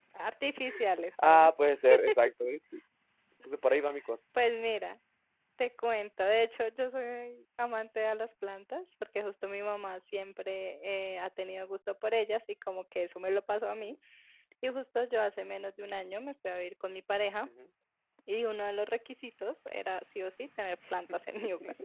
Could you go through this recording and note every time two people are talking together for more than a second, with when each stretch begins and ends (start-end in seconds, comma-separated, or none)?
none